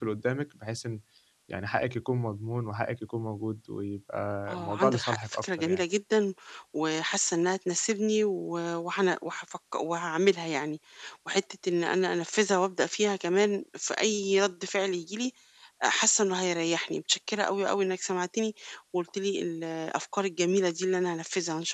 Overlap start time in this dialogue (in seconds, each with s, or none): 4.5 s